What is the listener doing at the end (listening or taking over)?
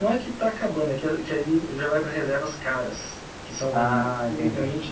listening